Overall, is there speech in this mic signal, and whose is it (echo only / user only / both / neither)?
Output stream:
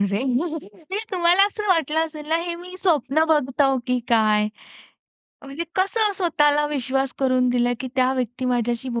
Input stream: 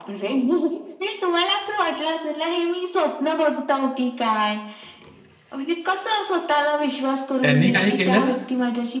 both